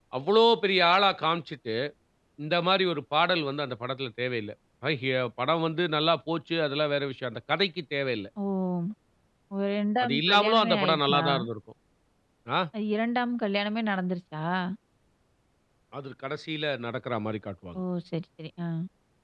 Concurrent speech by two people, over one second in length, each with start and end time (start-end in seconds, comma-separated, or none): 10.0-11.2